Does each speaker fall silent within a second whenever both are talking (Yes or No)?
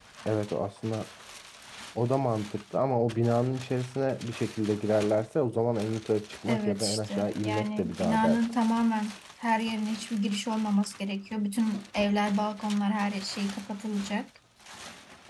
No